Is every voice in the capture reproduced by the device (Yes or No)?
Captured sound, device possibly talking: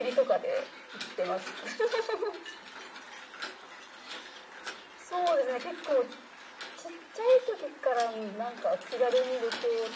Yes